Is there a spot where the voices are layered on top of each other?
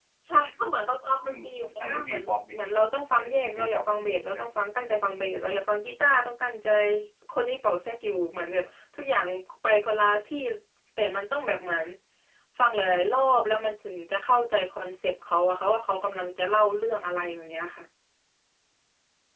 Yes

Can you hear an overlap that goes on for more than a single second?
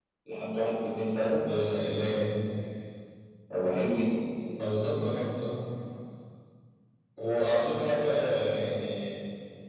No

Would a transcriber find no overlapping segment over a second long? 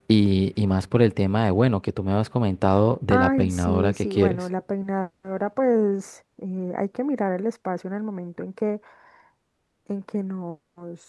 No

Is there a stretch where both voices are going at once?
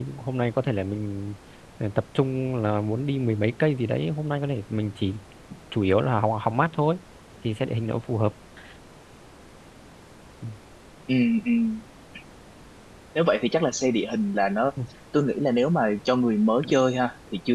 No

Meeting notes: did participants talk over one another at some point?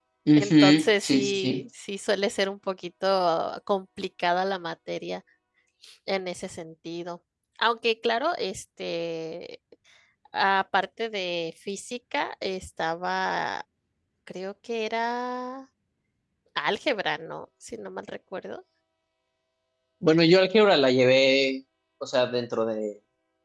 Yes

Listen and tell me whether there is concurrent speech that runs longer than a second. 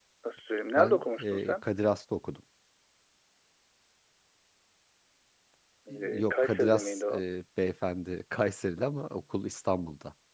Yes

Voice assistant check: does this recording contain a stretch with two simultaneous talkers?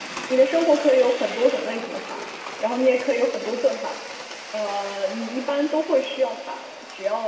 No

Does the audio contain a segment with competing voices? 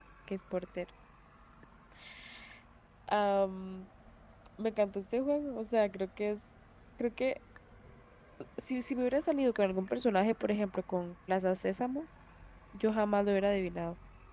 No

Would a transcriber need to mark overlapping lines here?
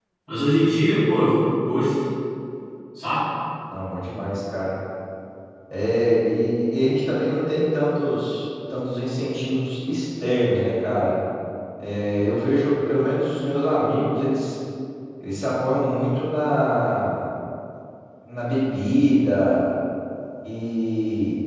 No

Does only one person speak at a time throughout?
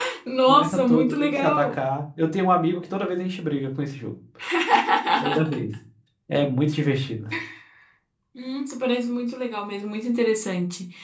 No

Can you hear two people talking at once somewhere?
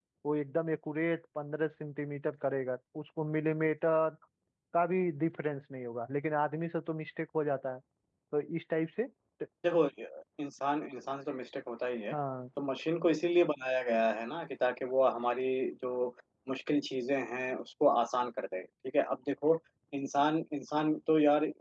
No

